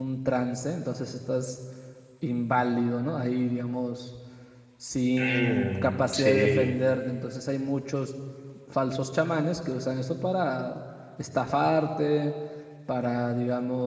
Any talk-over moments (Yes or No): Yes